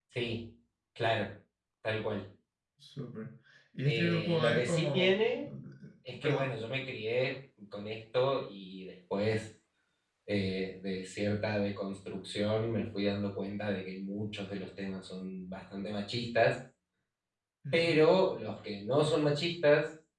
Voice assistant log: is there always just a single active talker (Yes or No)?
No